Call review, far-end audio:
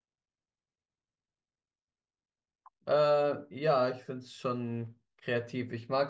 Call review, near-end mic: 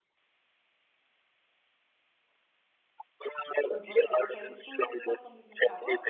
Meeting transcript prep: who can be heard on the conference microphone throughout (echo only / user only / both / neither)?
both